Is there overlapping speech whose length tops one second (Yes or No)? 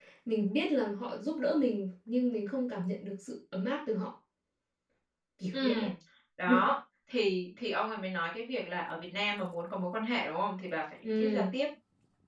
No